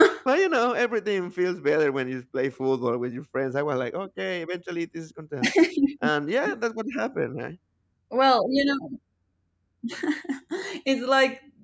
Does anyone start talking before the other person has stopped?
No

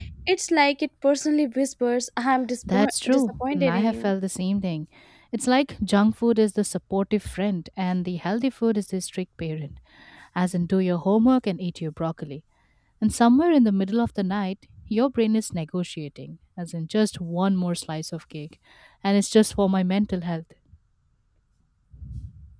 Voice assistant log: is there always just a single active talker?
No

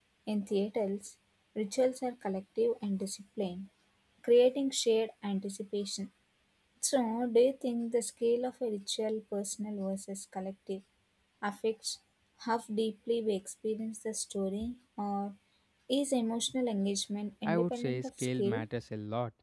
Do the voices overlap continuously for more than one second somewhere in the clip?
Yes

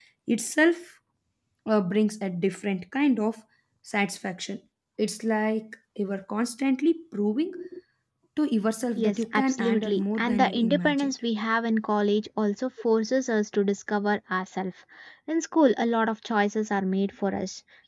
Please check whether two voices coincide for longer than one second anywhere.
Yes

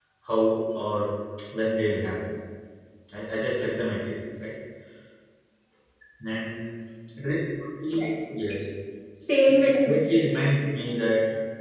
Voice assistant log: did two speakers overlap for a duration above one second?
Yes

